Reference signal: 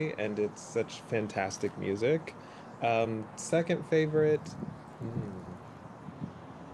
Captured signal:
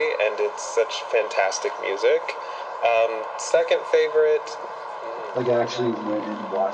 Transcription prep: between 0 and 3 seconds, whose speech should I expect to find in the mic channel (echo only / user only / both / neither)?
echo only